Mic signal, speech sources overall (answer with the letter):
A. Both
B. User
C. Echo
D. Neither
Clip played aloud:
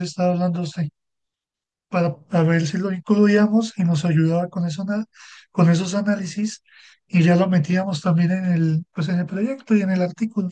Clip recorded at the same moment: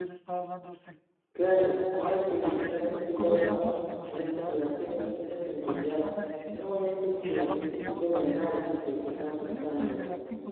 A